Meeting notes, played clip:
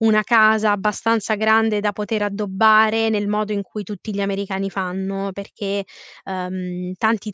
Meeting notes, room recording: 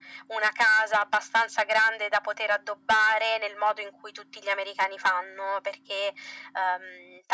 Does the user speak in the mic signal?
No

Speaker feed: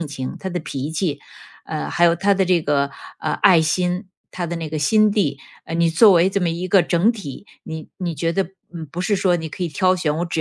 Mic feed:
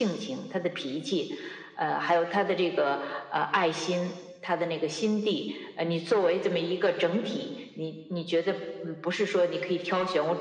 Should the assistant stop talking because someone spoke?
No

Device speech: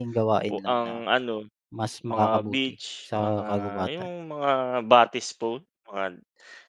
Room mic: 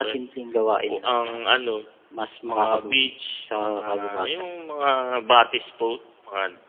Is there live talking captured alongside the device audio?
No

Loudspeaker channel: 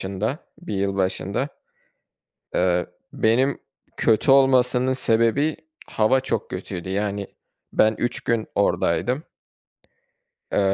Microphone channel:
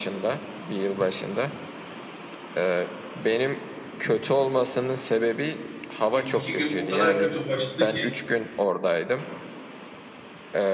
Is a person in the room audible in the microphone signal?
Yes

